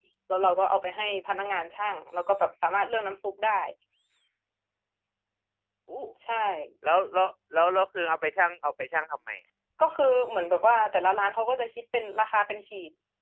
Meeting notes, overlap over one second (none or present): none